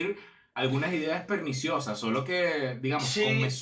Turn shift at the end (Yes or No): Yes